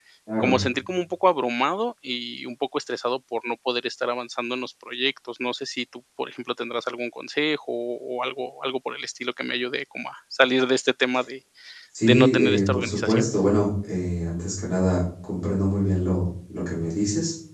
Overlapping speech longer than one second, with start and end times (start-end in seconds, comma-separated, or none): 12.0-13.2